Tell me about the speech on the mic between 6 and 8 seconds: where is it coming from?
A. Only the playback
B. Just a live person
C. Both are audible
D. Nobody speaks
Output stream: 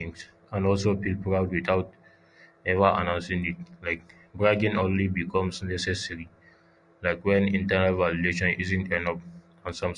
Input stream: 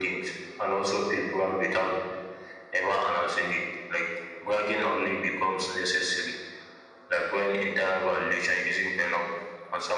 A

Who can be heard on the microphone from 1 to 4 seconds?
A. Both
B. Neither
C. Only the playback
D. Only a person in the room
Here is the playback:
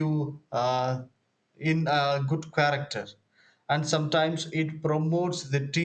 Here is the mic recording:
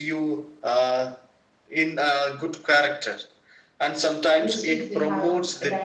C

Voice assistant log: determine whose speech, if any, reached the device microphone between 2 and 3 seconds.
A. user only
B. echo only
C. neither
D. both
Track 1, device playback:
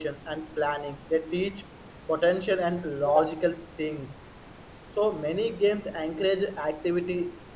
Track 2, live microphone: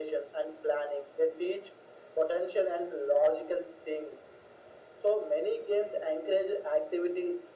B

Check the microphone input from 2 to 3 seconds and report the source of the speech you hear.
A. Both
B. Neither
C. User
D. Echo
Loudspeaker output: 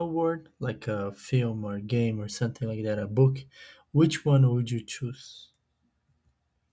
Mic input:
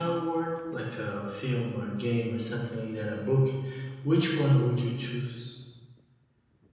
D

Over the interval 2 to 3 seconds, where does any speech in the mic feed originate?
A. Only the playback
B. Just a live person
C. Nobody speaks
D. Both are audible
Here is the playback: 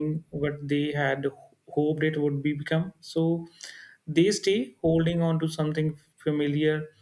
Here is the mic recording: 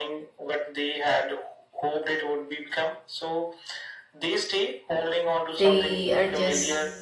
A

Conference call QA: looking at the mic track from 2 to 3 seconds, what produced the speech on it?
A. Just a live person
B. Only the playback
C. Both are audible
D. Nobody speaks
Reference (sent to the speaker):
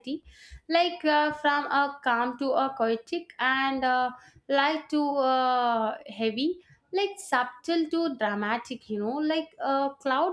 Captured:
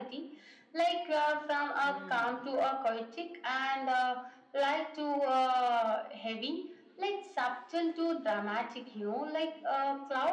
C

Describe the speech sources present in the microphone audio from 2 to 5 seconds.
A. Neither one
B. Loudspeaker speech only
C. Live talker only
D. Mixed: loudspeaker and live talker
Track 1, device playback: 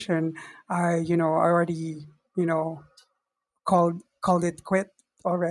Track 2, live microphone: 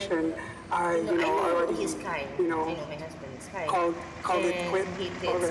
D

